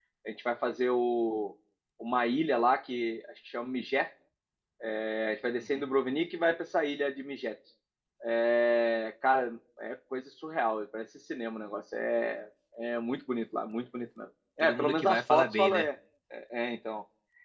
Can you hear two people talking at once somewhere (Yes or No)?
Yes